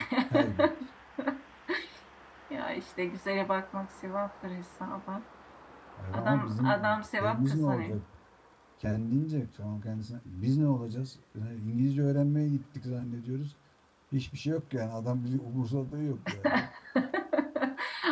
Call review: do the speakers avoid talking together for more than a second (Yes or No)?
No